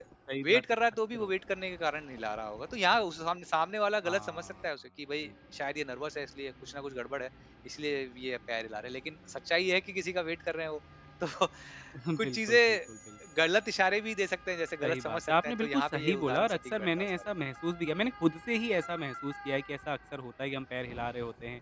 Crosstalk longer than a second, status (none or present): present